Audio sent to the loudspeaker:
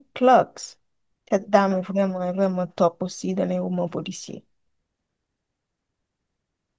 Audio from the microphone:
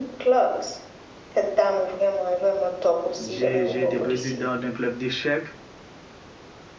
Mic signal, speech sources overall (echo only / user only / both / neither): both